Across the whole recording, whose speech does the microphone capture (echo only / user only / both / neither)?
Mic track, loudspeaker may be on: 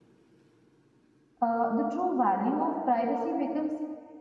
user only